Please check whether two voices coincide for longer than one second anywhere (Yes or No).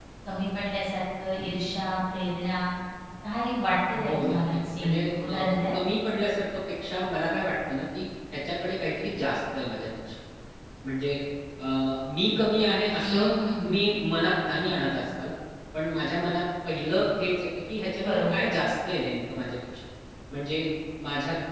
Yes